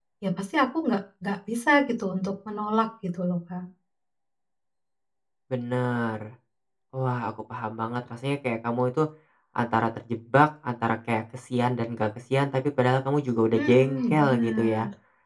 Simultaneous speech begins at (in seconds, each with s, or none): 13.5 s